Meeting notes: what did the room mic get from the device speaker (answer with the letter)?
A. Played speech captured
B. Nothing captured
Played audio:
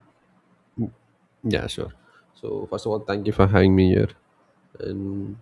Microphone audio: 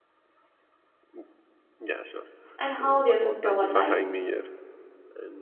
A